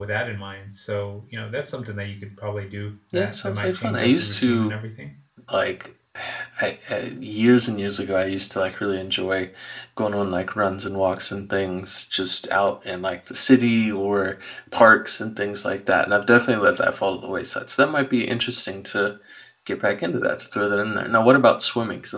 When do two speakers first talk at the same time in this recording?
3 s

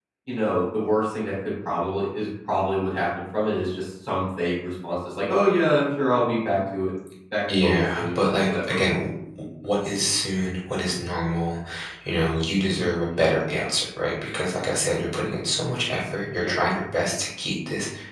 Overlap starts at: 7 s

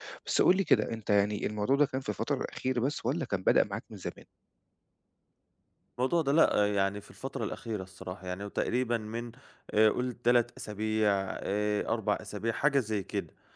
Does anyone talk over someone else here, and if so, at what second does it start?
none

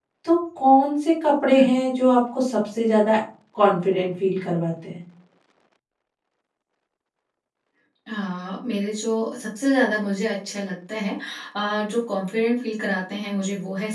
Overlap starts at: none

